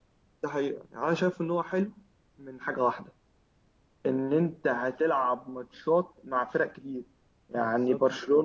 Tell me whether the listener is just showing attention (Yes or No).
Yes